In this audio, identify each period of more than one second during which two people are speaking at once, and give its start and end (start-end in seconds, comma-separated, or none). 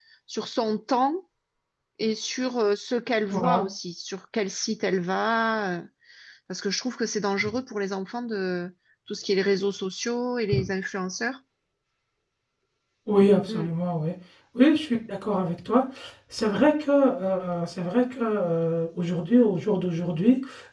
none